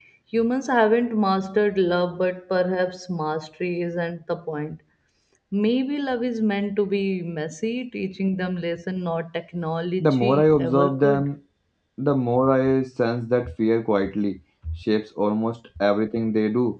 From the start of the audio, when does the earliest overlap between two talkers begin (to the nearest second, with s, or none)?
10 s